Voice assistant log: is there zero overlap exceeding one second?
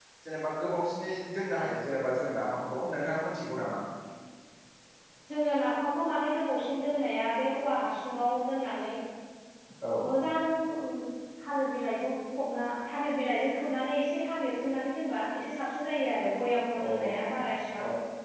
Yes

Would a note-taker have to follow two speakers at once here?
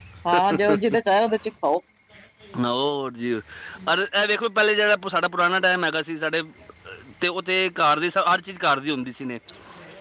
No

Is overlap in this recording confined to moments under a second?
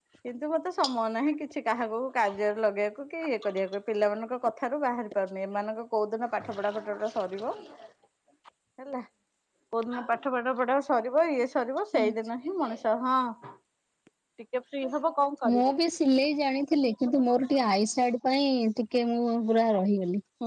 Yes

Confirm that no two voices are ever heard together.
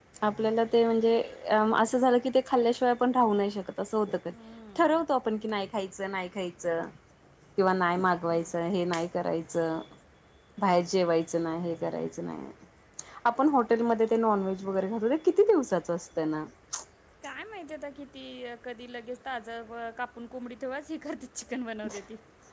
Yes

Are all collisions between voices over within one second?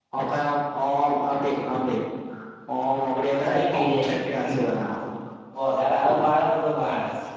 No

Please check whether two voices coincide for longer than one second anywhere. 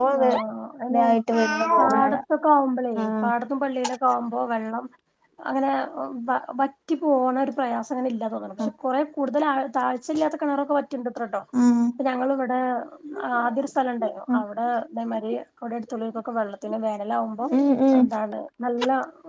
No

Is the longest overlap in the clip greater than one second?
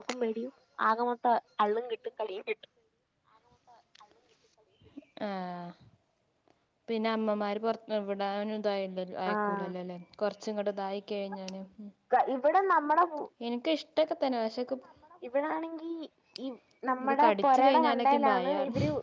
Yes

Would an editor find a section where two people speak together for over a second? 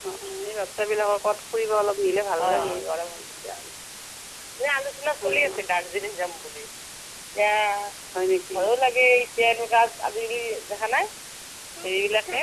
No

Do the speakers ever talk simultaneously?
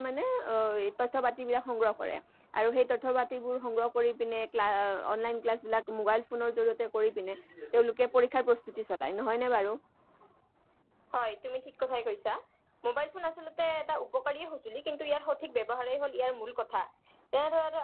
No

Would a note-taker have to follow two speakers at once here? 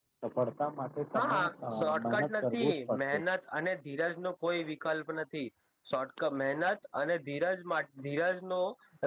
Yes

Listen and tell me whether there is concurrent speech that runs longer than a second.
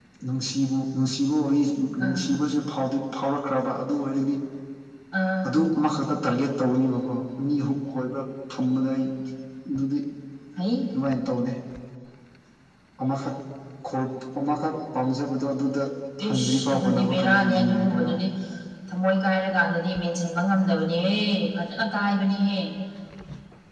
Yes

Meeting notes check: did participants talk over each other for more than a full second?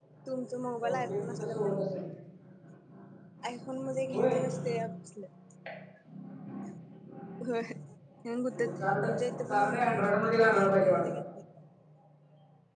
Yes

